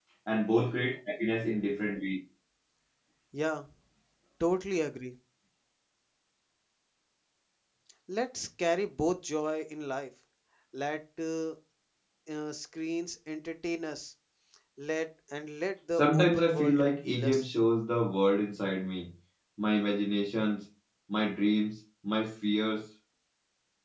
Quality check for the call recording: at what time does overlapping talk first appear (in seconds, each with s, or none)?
16.0 s